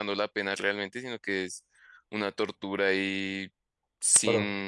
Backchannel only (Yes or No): Yes